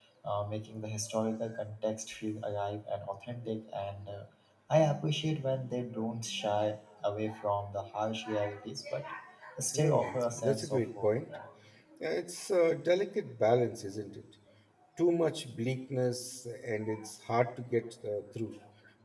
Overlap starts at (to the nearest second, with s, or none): 10 s